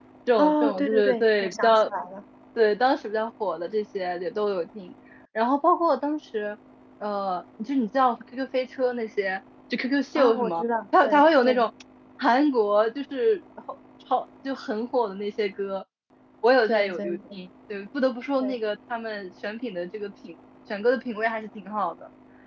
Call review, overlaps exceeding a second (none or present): present